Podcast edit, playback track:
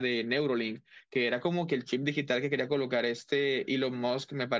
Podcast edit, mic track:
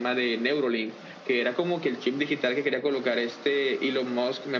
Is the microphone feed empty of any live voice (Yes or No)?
Yes